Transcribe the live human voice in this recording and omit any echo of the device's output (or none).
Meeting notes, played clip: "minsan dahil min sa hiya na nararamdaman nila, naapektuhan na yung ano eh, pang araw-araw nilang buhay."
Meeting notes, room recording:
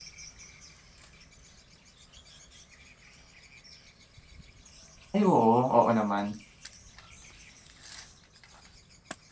Ay oo, oo naman.